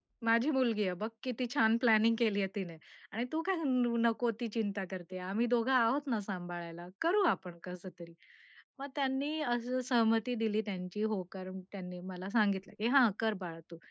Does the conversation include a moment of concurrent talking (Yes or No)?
No